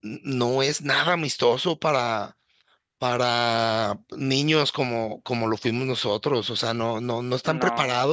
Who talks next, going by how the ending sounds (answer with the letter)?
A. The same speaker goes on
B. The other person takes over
A